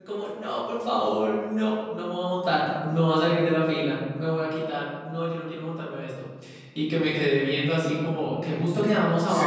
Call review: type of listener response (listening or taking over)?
listening